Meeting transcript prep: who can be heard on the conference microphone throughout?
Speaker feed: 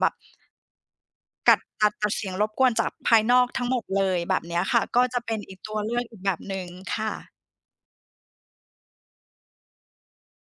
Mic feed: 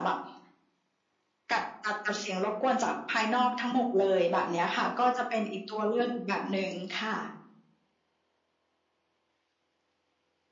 echo only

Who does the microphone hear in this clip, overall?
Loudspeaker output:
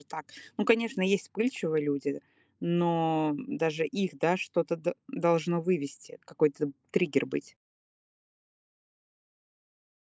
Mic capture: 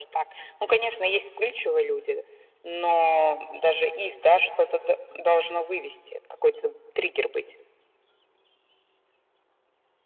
echo only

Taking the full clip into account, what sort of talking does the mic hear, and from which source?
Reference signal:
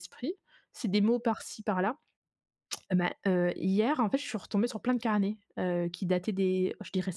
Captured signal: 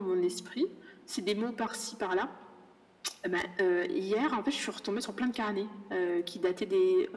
echo only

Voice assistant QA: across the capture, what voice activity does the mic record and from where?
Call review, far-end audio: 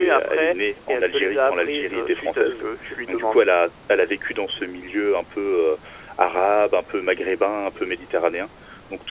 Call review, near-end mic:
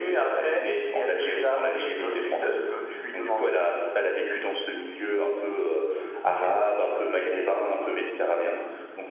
both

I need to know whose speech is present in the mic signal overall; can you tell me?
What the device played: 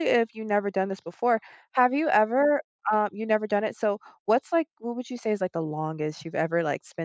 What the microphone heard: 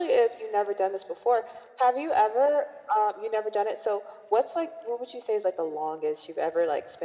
echo only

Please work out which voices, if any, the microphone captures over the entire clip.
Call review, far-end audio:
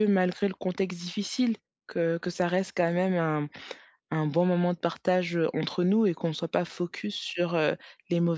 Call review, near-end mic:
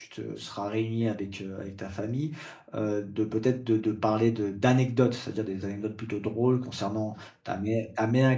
user only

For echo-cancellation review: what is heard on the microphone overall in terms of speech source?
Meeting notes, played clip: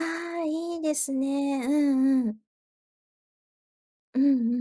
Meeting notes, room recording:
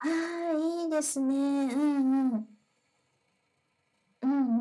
echo only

